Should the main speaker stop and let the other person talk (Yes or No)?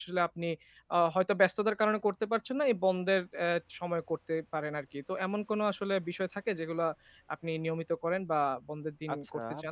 Yes